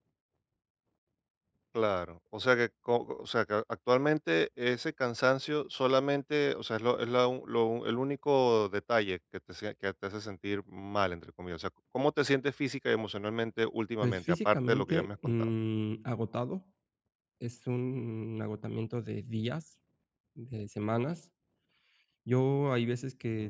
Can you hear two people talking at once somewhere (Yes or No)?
Yes